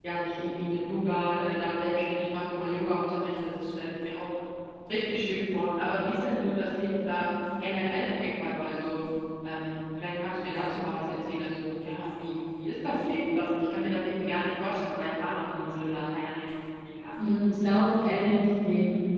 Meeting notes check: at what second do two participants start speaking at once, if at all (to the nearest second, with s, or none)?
none